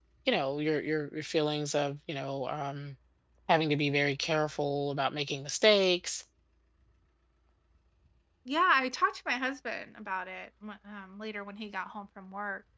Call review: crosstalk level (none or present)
none